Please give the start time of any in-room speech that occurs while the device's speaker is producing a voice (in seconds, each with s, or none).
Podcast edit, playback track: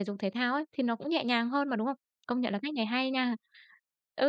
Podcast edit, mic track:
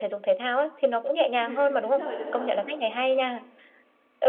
1.3 s